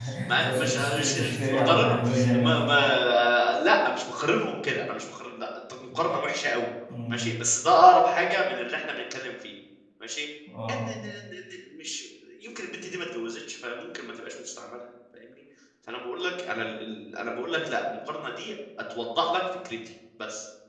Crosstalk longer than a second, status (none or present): present